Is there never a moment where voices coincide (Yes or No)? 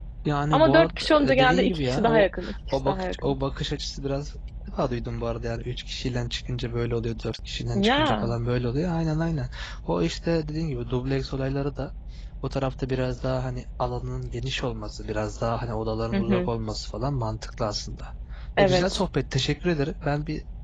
No